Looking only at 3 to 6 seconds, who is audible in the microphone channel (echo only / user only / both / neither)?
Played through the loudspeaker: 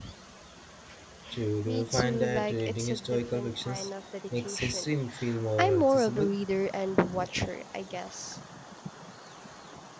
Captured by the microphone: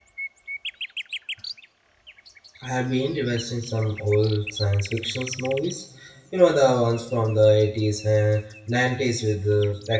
user only